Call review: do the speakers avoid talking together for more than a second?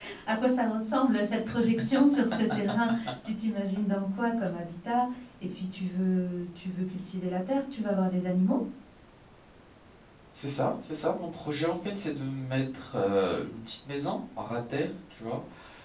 Yes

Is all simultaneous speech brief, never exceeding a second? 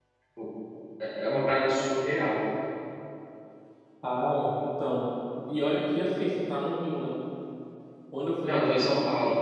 Yes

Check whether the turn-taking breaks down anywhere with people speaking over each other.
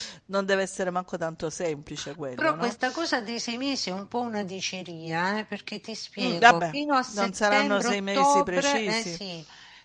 Yes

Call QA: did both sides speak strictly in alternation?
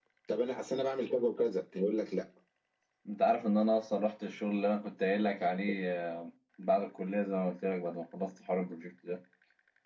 Yes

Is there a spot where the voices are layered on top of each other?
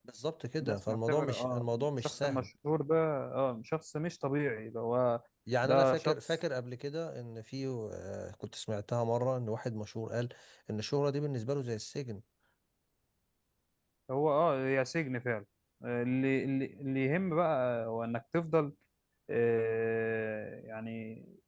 Yes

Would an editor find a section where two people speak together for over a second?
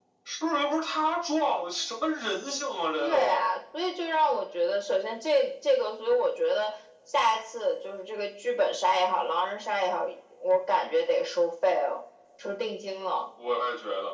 No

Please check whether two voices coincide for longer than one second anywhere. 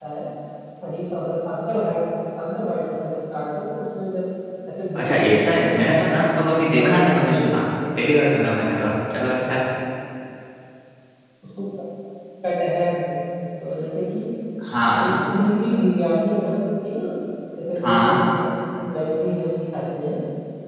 Yes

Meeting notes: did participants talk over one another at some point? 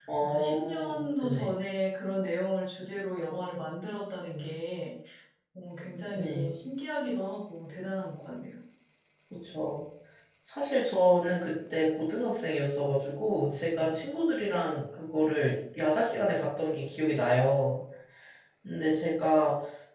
Yes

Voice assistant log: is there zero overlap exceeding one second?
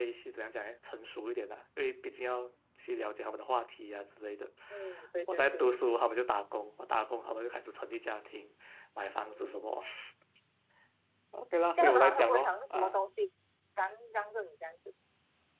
No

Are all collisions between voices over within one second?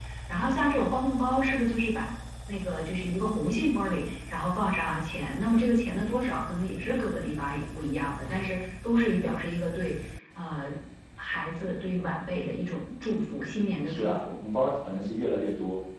Yes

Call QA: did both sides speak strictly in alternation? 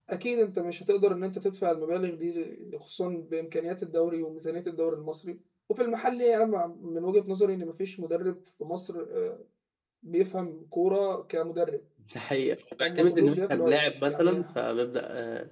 No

